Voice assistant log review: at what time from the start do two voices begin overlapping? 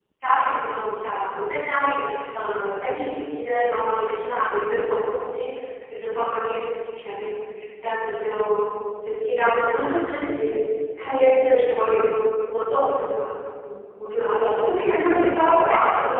14.3 s

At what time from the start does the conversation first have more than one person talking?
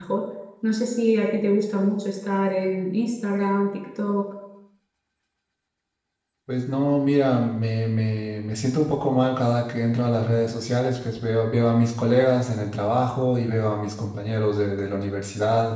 none

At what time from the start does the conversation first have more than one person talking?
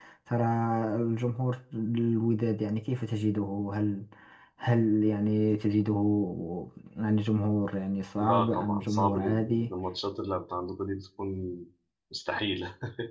8.2 s

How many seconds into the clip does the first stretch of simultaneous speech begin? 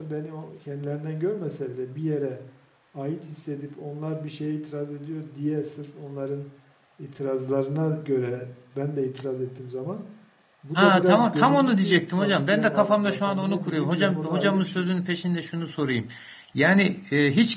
10.8 s

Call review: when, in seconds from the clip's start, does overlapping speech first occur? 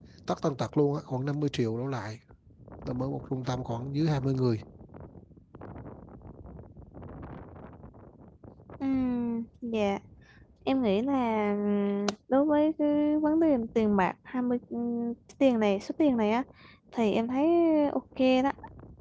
none

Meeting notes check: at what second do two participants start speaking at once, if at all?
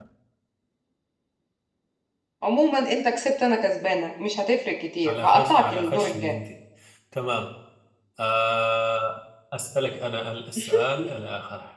5.0 s

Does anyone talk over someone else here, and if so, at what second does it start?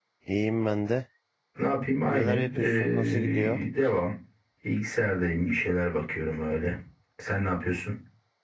2.1 s

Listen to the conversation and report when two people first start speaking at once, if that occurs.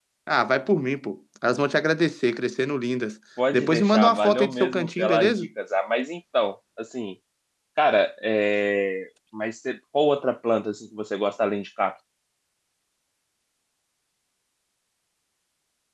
3.4 s

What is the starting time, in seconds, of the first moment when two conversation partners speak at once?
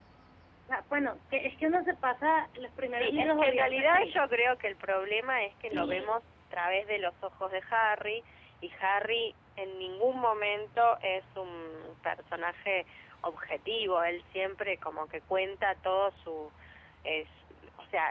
2.9 s

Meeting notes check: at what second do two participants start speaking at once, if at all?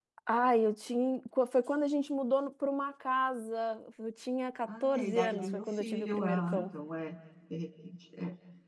4.7 s

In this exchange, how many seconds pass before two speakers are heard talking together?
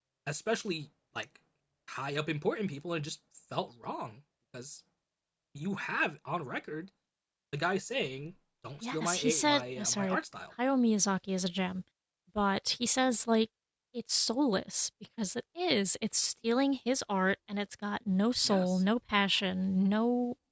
8.8 s

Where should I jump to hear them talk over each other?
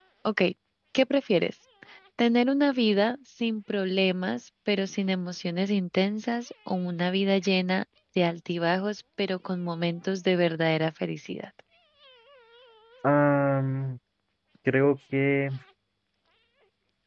none

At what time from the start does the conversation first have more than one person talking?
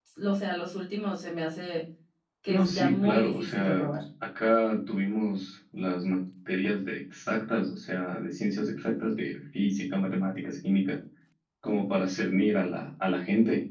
2.5 s

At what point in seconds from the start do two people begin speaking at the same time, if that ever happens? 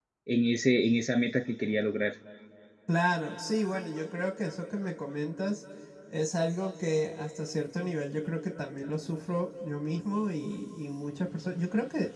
none

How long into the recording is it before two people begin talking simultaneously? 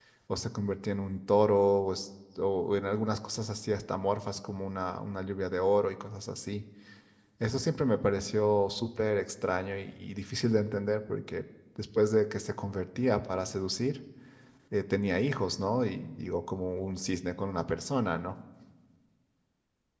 none

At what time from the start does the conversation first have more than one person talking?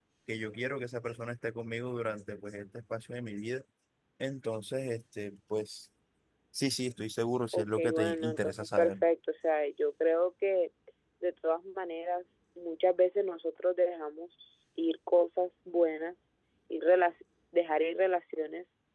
7.5 s

